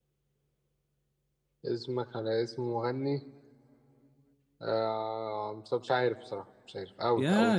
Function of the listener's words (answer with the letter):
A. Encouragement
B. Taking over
B